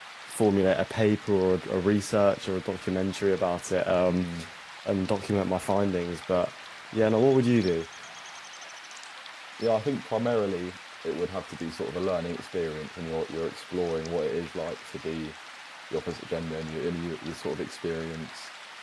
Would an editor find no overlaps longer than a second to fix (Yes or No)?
Yes